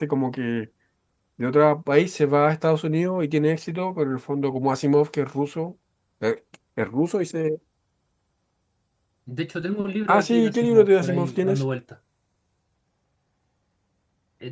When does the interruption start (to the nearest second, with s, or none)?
10 s